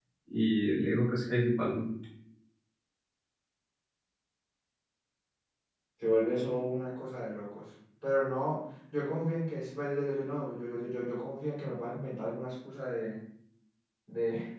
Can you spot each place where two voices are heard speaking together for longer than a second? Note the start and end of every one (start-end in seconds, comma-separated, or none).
none